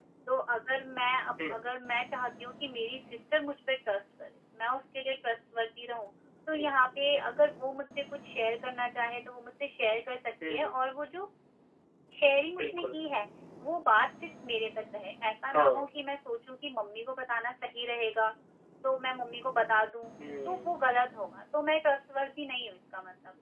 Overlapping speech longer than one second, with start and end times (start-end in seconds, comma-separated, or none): none